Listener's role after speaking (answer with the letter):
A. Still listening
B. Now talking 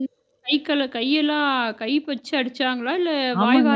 B